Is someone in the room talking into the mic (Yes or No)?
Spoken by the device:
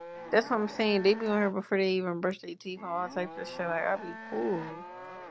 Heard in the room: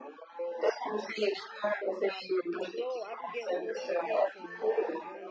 Yes